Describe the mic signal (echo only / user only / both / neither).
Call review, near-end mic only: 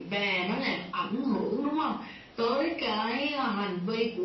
echo only